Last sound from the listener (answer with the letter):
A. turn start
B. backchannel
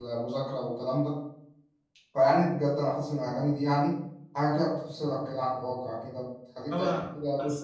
A